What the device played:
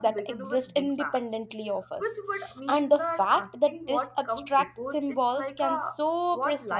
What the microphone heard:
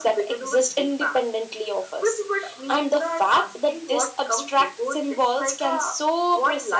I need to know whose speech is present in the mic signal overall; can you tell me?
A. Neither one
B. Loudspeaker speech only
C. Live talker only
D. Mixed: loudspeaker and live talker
B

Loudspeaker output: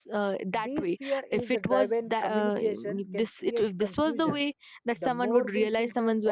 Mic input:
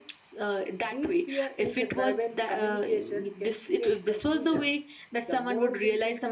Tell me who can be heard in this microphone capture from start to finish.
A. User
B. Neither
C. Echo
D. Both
C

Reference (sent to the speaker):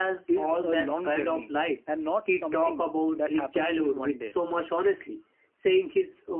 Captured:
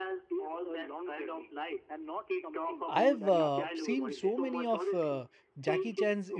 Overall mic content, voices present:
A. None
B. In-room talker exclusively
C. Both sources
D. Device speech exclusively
C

